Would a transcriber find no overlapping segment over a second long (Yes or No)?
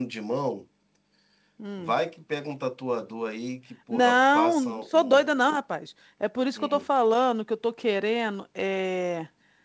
No